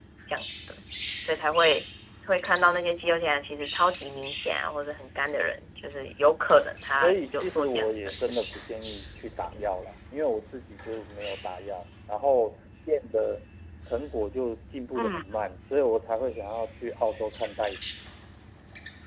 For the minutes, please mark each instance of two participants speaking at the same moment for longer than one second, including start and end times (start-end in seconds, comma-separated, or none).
7.0-8.5